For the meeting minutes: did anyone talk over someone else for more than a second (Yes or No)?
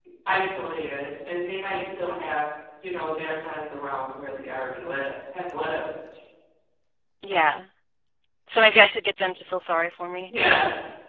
No